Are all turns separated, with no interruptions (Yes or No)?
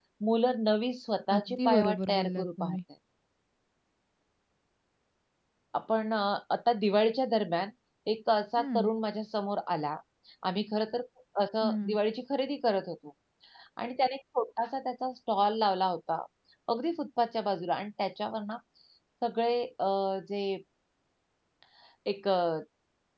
No